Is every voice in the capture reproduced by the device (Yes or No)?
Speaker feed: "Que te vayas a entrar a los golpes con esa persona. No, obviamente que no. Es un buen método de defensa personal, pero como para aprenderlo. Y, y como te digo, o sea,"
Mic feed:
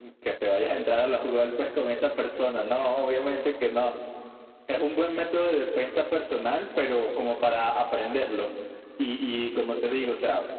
Yes